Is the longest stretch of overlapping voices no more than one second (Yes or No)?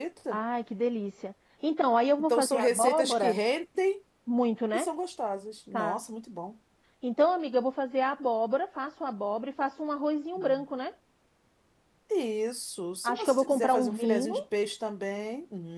No